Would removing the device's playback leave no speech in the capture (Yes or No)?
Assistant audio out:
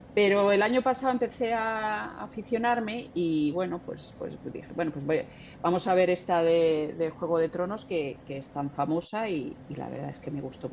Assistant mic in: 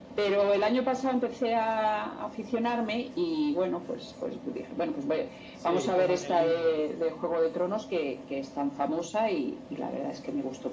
No